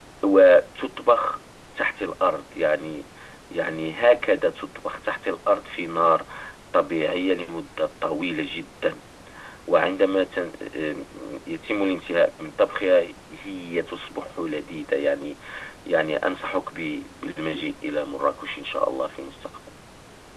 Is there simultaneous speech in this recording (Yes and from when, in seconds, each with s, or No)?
No